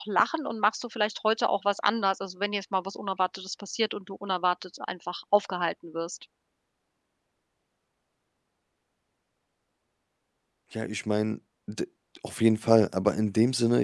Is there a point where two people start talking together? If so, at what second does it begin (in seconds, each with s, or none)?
none